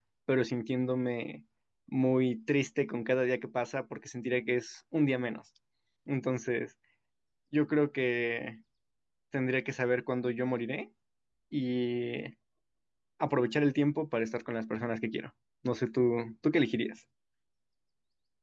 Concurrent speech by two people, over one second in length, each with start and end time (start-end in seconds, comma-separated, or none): none